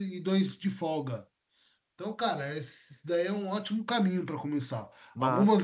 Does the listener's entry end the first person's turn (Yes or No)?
No